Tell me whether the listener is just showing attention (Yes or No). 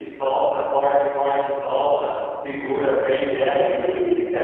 Yes